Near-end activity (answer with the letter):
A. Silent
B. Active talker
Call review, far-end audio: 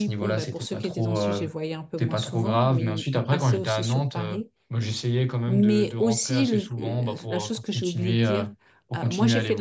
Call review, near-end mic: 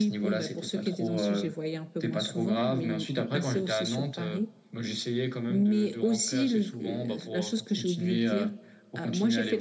A